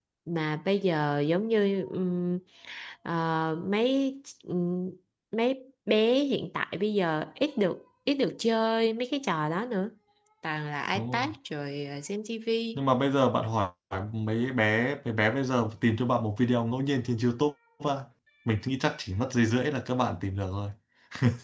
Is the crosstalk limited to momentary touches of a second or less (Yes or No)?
Yes